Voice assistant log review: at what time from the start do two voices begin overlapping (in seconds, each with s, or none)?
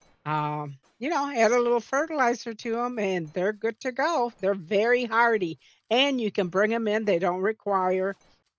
none